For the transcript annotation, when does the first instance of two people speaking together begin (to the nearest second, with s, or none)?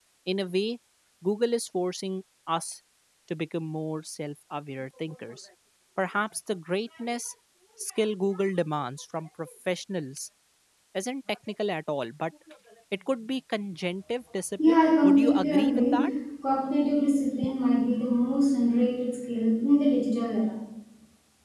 15 s